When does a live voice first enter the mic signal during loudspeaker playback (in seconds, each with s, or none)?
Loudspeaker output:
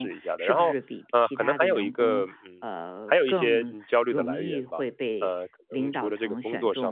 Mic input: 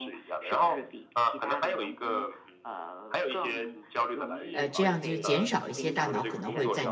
4.5 s